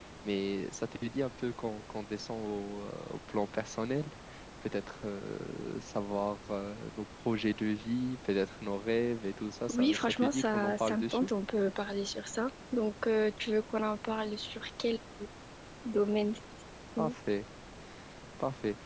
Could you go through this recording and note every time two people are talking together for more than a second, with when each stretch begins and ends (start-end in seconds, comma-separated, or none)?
9.7-11.3